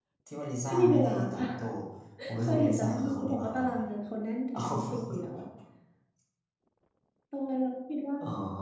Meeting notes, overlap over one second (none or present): present